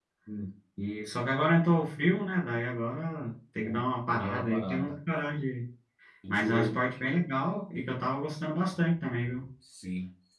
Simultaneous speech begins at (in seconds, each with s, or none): 3.6 s